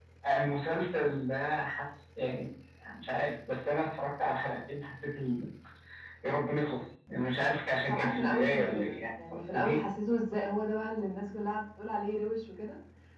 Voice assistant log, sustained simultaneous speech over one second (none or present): present